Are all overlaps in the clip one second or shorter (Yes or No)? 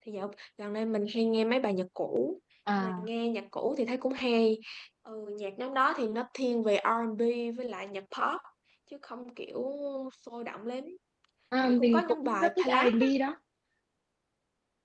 No